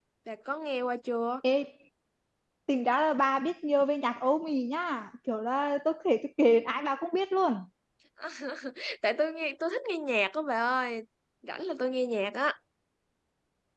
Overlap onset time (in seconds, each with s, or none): none